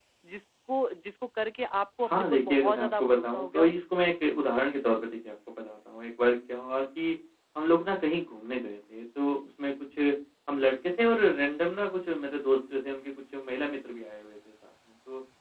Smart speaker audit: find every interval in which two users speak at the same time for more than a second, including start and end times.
2.0-3.7

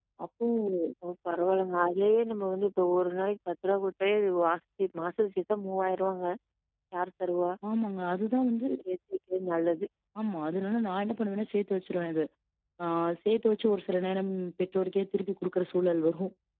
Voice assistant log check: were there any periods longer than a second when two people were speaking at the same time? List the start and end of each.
none

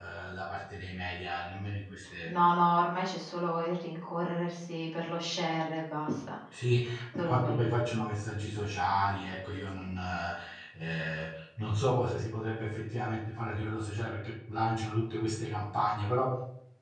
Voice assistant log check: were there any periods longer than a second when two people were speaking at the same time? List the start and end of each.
none

